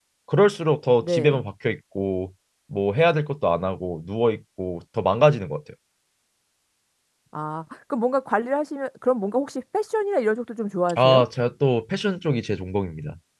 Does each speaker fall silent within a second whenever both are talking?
Yes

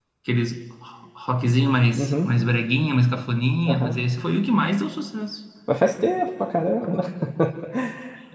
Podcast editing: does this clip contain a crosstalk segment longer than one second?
No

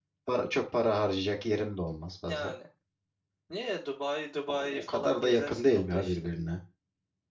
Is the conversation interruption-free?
No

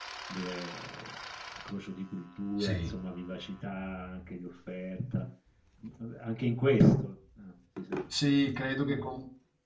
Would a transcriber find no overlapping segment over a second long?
Yes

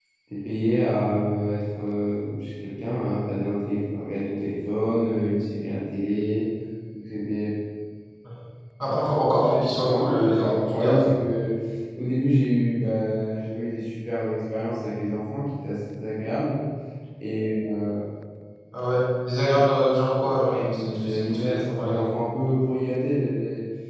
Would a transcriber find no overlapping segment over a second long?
No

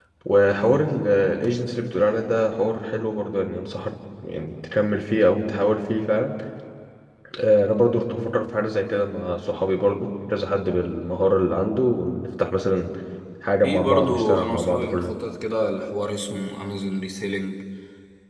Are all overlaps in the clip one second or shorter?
No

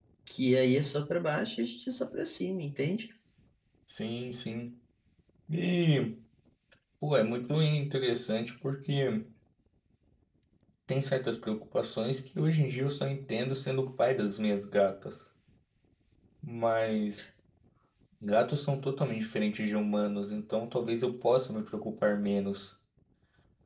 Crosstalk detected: No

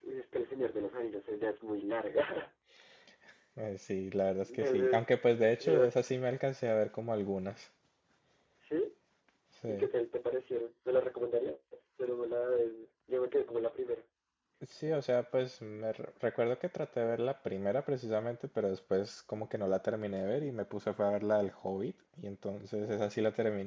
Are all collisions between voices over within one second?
No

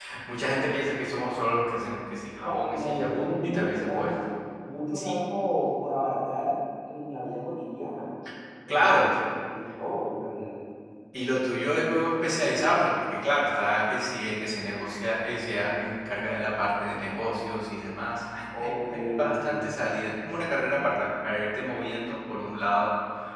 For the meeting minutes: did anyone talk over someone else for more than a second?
Yes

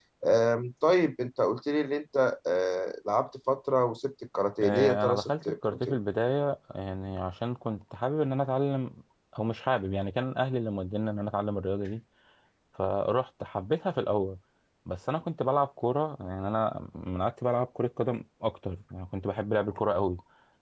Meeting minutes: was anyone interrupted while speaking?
Yes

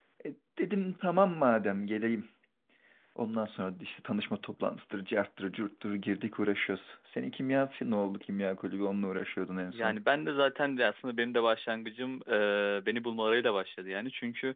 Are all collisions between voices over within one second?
Yes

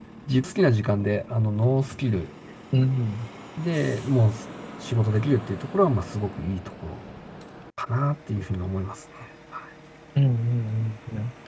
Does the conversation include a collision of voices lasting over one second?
No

